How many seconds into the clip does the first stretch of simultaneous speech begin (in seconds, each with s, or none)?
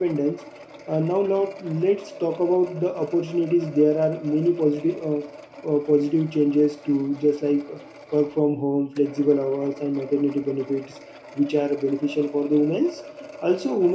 none